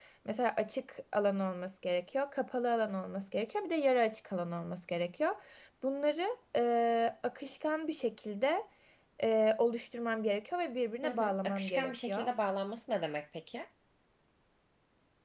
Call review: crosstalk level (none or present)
present